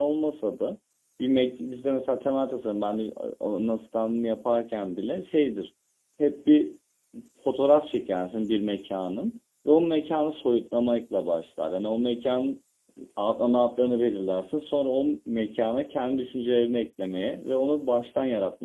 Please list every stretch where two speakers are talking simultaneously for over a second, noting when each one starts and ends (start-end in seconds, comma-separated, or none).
none